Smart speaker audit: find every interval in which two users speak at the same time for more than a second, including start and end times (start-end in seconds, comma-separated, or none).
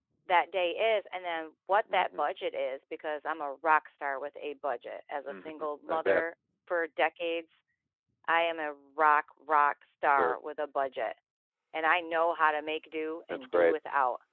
none